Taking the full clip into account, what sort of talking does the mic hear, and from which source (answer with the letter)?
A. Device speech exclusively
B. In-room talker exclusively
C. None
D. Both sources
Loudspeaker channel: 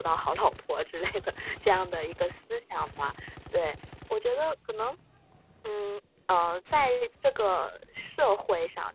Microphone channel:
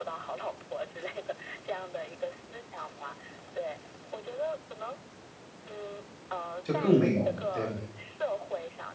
D